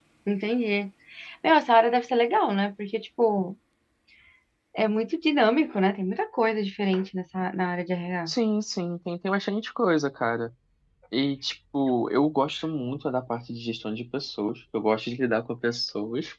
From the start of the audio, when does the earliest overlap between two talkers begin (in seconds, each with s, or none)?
none